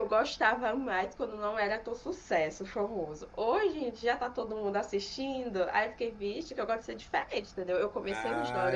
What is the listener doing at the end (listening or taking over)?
taking over